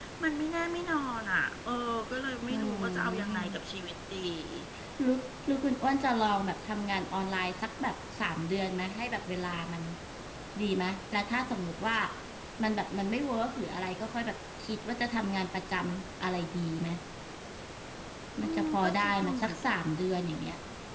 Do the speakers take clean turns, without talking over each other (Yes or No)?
No